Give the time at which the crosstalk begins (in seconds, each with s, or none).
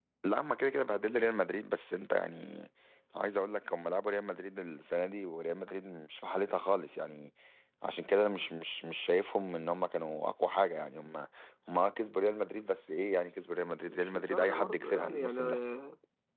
13.6 s